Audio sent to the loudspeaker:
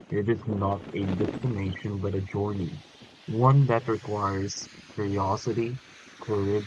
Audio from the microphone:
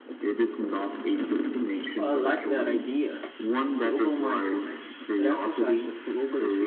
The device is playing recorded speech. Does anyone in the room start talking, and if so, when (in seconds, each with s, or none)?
2.0 s